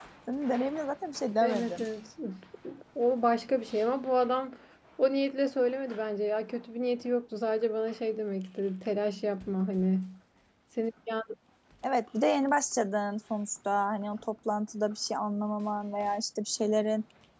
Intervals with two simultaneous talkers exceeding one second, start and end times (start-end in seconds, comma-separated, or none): none